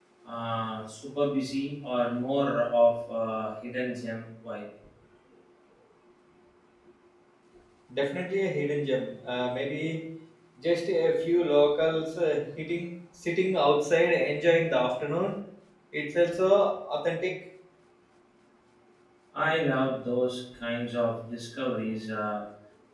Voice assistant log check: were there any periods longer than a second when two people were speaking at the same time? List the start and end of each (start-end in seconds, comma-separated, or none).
none